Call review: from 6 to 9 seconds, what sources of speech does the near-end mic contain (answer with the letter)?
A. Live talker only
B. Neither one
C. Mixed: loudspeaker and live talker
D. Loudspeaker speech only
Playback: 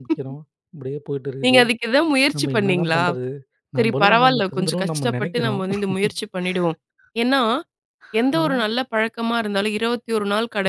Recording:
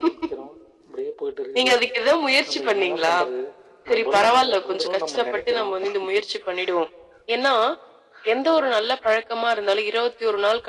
D